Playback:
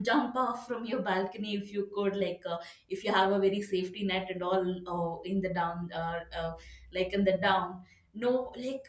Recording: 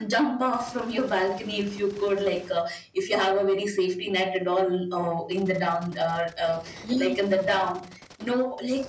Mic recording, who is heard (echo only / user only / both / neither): both